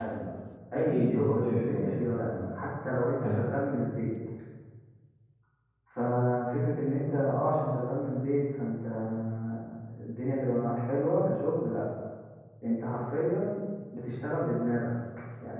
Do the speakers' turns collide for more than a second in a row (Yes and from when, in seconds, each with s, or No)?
Yes, from 0.8 s